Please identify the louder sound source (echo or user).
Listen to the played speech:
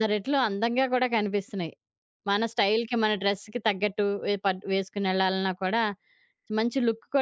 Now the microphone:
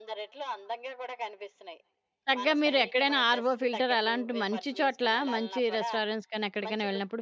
user